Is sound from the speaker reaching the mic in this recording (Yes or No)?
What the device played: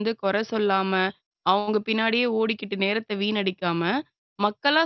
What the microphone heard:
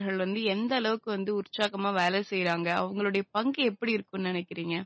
No